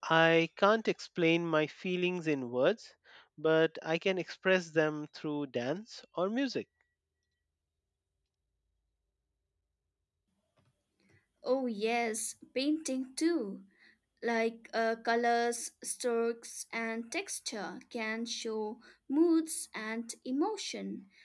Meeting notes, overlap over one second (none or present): none